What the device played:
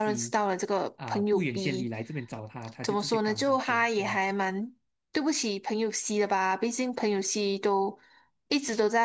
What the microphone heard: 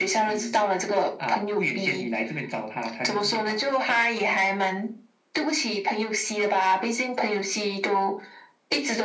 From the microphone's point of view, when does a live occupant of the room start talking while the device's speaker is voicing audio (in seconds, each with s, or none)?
none